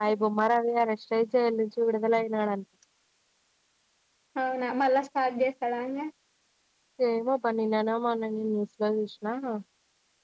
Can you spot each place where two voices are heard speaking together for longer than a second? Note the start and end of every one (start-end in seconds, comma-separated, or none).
none